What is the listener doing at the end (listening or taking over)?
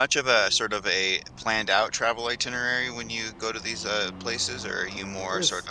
listening